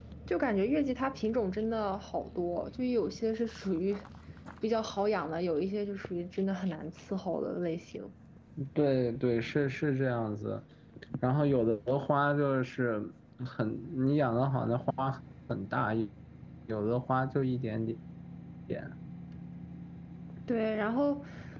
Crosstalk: none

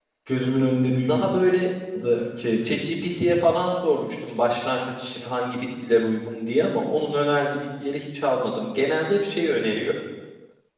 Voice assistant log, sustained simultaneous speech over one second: none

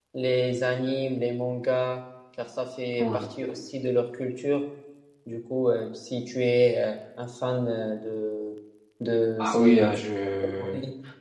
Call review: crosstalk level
present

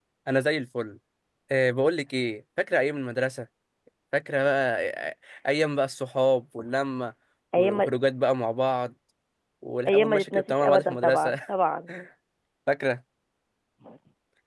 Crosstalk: present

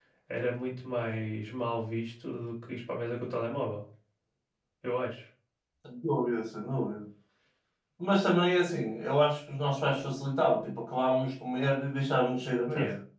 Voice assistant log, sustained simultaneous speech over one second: none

